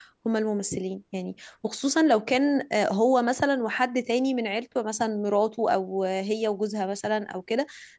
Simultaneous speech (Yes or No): No